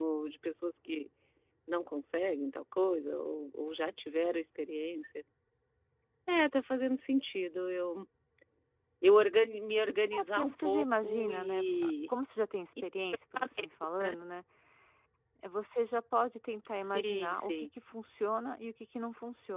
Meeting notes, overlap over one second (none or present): present